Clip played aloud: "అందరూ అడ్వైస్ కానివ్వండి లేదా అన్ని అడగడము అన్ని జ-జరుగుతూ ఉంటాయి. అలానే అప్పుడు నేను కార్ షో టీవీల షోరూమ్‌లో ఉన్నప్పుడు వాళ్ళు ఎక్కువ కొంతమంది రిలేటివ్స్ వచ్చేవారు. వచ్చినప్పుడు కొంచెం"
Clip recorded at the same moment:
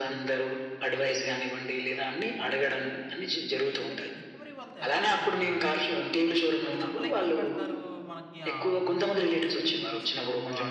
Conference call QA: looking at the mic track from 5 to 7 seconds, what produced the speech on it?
both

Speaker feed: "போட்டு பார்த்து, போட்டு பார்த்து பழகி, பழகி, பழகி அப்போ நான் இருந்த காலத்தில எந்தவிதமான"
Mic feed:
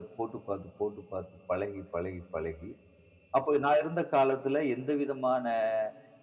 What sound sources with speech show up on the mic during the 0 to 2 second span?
echo only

